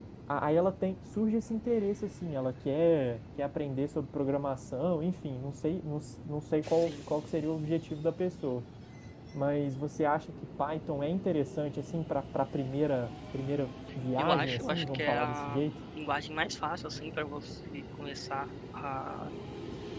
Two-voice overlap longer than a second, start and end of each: 14.2-15.6

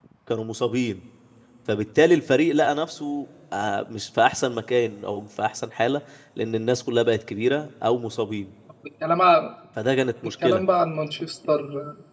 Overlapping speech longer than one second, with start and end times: none

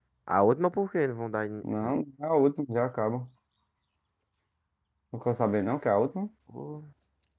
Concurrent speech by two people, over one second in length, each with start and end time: none

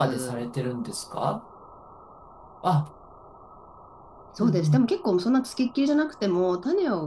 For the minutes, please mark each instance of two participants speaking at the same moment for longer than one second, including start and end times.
none

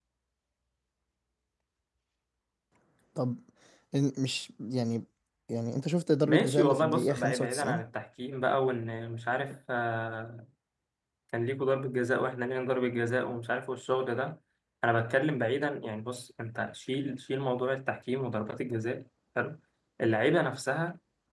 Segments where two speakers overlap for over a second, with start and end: 6.2-7.8

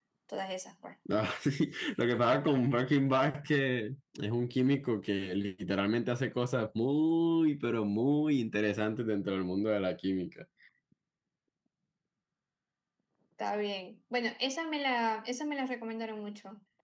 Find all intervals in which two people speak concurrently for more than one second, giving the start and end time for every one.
none

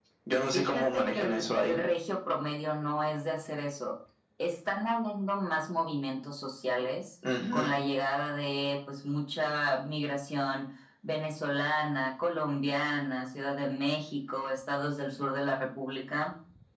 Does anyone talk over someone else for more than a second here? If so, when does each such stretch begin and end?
0.5-1.8

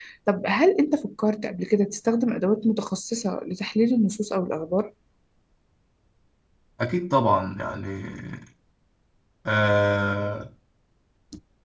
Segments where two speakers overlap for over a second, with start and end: none

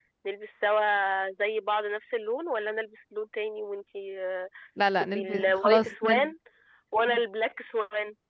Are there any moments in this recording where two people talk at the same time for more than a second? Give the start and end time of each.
5.0-6.3

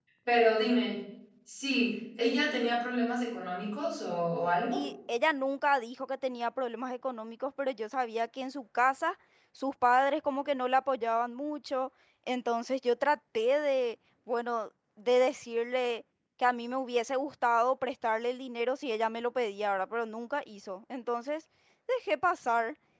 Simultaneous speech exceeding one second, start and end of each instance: none

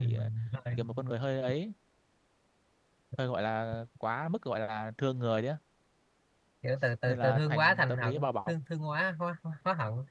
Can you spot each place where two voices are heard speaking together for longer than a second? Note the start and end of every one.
7.1-8.5

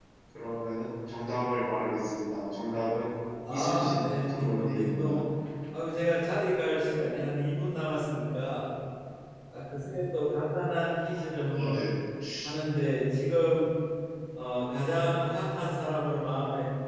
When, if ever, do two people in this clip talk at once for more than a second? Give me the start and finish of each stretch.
3.5-5.2

